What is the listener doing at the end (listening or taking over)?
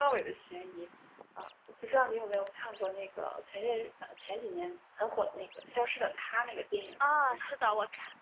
taking over